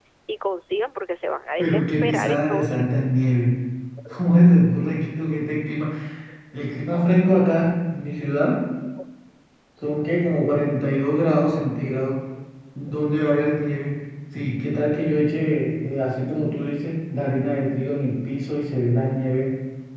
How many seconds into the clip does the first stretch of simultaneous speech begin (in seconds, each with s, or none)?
1.6 s